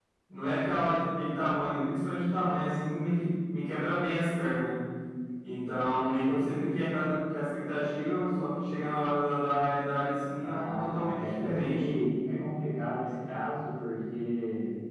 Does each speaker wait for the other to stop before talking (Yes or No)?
No